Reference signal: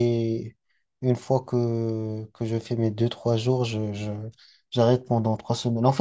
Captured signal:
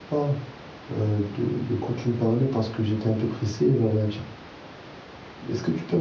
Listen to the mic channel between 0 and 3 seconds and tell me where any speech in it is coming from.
user only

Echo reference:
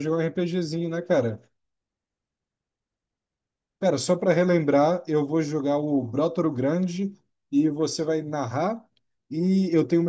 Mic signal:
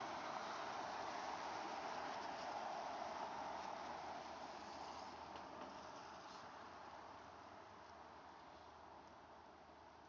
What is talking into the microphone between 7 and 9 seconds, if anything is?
neither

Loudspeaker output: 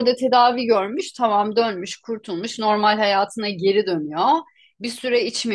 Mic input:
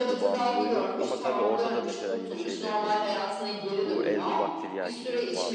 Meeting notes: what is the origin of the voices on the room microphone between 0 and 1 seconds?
both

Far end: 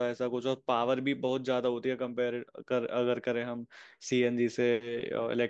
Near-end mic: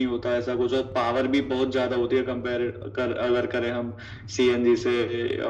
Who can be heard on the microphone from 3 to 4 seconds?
echo only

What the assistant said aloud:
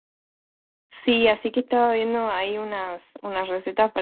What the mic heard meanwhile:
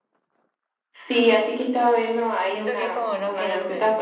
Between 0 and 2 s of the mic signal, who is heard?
echo only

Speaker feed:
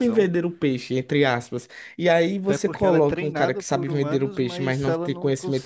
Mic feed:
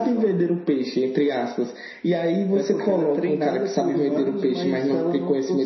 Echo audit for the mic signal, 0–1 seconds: echo only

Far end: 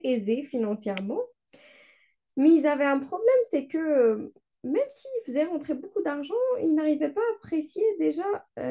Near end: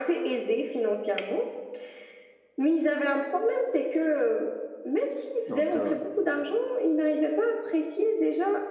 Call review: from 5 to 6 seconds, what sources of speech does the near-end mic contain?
both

